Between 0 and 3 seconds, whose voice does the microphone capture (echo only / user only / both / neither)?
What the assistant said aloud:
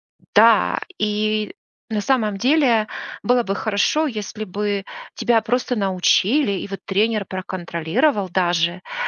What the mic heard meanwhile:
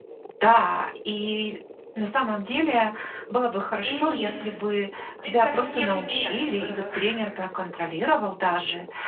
echo only